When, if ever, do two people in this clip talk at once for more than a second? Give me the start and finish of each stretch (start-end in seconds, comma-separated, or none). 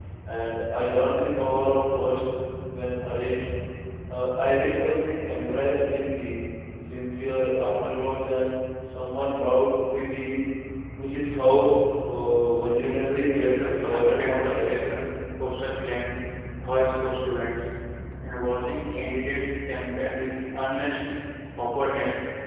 13.5-14.9